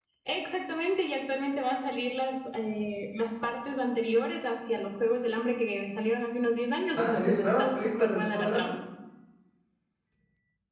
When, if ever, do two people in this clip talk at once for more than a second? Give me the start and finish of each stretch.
7.0-8.7

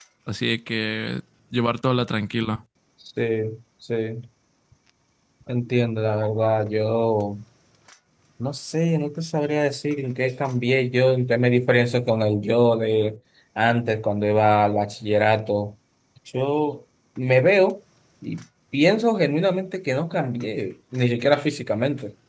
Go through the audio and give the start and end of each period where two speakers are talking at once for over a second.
none

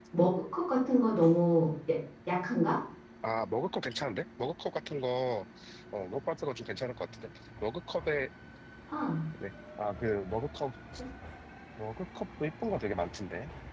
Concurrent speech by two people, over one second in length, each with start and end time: none

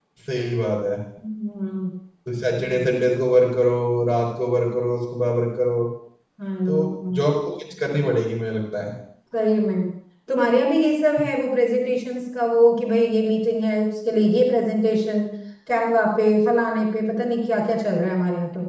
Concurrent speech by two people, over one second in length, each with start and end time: none

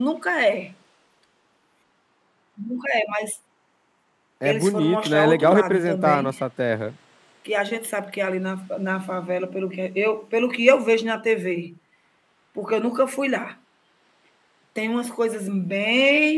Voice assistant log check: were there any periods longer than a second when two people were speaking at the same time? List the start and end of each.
4.5-6.3

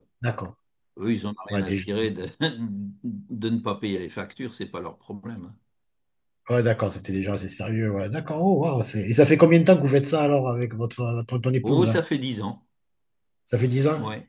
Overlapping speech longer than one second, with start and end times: none

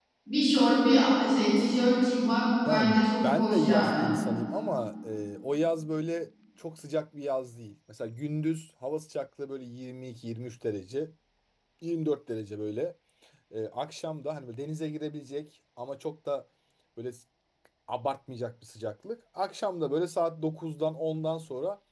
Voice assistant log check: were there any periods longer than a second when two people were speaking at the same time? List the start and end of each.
2.7-4.1

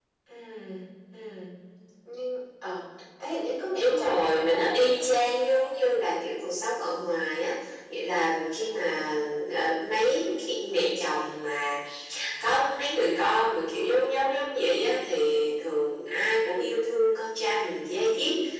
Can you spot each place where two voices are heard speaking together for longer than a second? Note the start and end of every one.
3.8-5.2

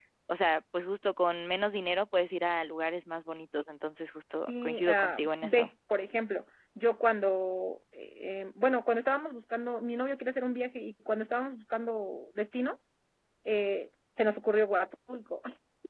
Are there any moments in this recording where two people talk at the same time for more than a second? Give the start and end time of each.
4.5-5.7

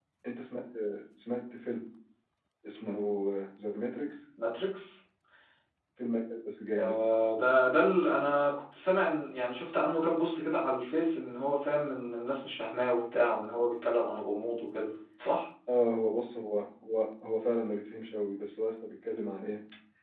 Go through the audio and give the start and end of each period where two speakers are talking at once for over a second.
none

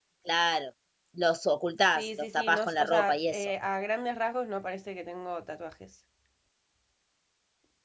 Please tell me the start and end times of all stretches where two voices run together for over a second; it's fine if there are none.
1.9-3.5

